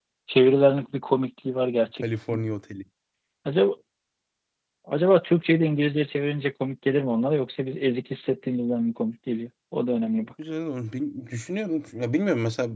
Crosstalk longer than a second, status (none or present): none